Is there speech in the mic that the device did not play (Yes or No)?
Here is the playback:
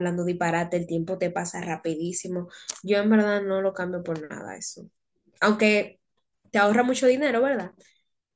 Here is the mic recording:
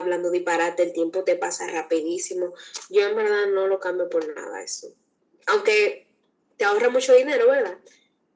No